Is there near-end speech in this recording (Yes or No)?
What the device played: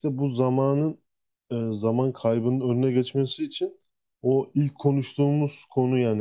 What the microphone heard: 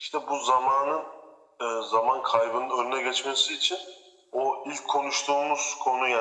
No